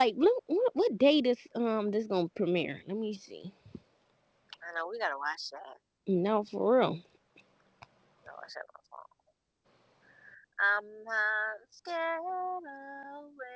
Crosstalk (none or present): none